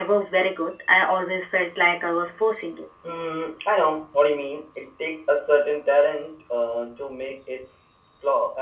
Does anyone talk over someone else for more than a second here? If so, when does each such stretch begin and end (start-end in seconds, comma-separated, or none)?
none